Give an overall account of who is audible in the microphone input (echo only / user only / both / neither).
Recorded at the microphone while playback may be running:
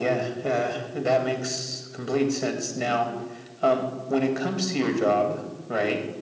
both